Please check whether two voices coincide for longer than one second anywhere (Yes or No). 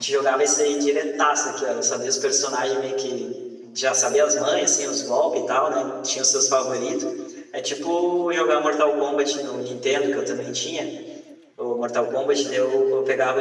No